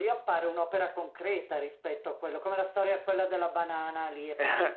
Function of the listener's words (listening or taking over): listening